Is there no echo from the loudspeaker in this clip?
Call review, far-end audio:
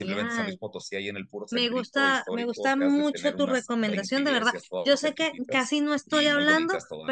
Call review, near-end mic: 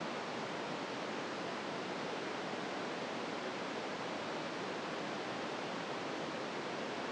Yes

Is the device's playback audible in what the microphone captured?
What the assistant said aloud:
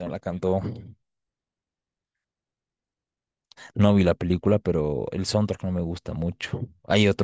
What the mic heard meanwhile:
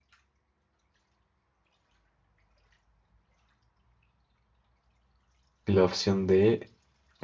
No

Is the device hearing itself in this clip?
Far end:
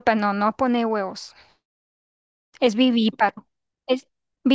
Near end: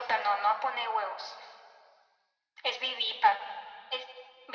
Yes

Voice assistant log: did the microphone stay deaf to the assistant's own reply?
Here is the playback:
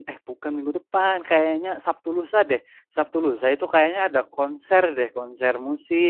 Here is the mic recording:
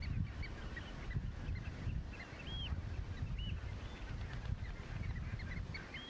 Yes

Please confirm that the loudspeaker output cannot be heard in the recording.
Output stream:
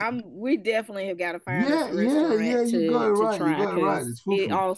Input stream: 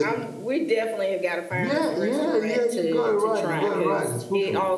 No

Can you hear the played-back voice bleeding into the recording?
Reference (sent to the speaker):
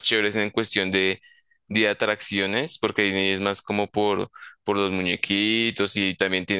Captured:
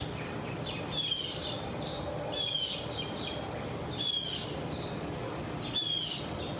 No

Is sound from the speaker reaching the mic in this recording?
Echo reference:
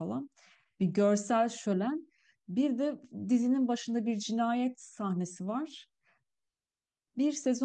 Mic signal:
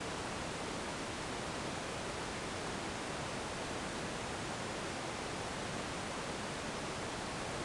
No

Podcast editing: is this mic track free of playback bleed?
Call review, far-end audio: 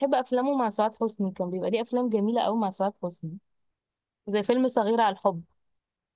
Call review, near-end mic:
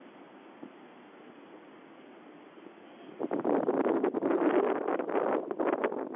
Yes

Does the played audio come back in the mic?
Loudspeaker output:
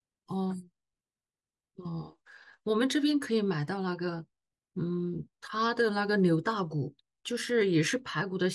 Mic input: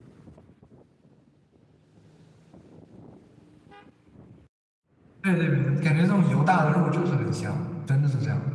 No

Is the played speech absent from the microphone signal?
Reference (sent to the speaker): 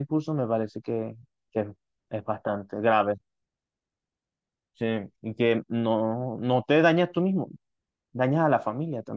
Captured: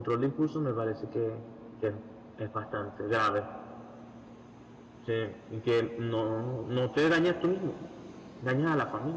No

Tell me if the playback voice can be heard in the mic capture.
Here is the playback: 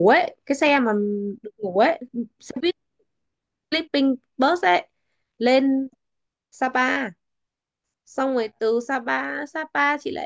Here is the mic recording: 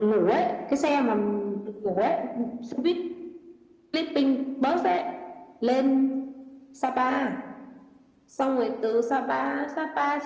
Yes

